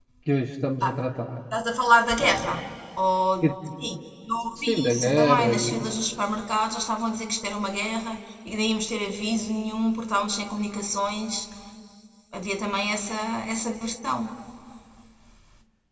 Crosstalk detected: Yes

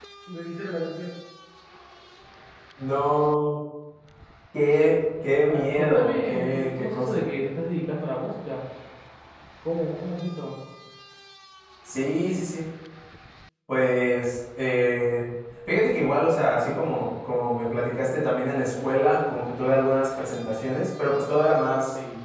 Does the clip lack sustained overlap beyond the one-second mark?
No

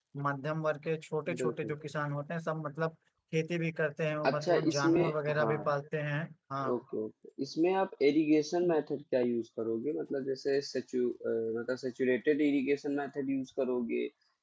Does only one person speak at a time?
No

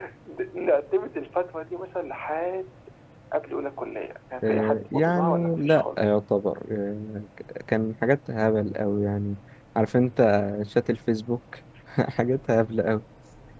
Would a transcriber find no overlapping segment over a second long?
No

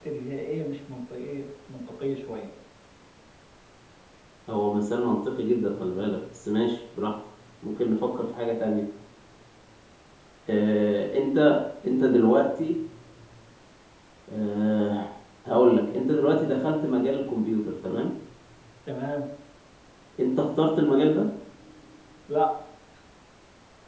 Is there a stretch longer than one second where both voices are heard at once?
No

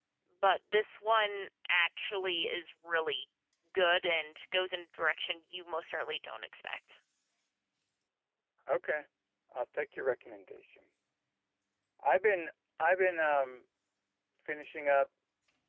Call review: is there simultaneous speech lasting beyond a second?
No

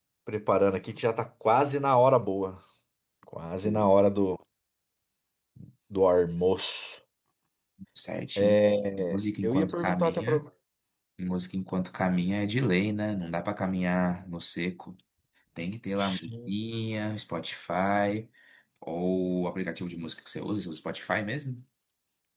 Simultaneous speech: Yes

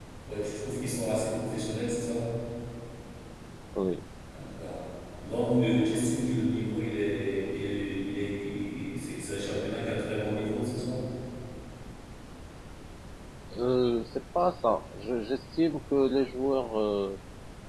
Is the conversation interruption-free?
Yes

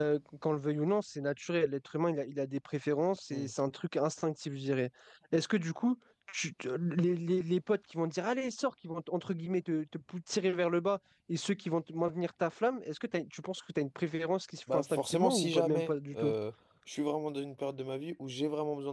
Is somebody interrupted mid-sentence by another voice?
Yes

